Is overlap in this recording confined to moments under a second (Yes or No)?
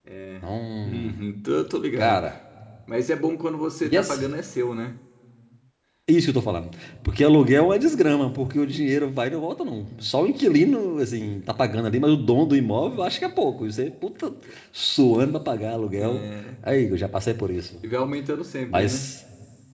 Yes